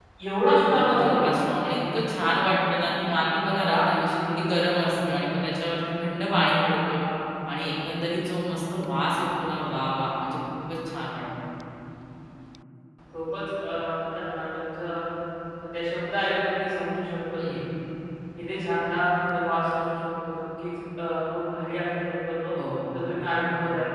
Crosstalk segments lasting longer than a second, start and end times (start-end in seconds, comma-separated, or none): none